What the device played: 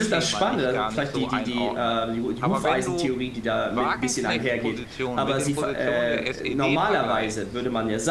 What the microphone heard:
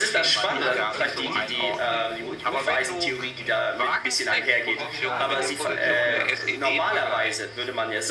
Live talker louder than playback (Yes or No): No